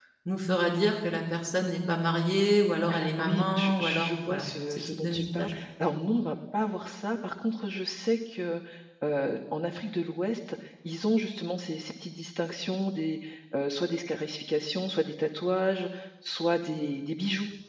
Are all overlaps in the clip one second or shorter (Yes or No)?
No